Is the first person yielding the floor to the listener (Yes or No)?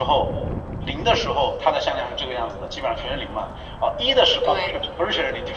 No